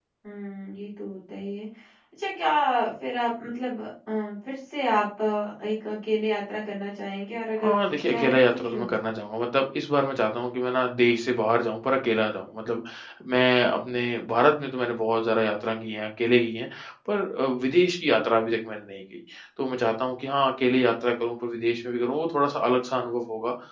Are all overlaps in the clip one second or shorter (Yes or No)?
No